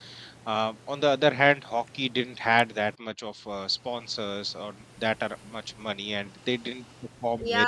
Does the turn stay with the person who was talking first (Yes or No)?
No